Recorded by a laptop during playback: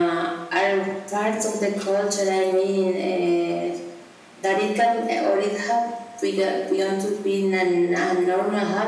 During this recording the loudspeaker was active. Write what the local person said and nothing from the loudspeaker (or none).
none